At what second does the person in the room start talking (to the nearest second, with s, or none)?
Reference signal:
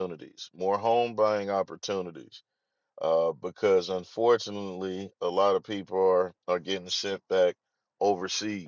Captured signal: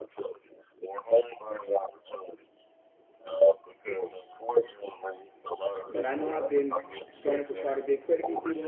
6 s